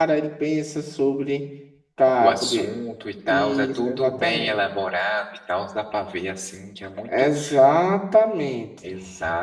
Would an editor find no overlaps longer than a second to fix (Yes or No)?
No